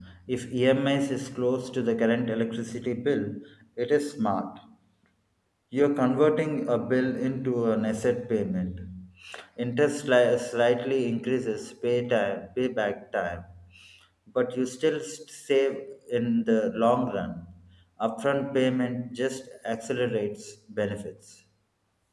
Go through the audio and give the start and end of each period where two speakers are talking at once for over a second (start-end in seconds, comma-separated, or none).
none